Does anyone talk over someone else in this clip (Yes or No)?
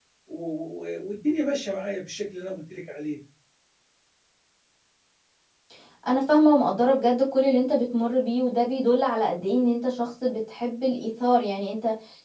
No